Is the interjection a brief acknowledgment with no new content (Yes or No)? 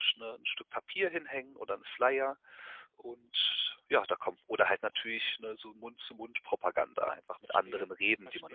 No